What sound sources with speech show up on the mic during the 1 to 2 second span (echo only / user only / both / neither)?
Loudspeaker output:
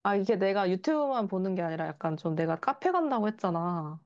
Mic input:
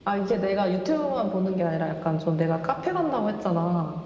echo only